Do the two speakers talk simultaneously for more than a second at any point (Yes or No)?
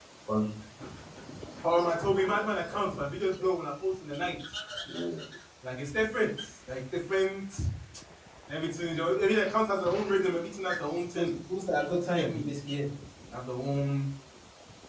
No